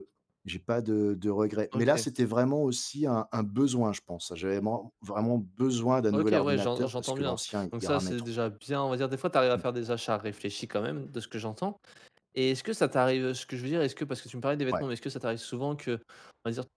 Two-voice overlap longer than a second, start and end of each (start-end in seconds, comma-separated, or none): 6.1-8.2